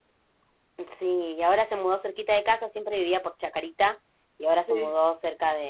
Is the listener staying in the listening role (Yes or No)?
Yes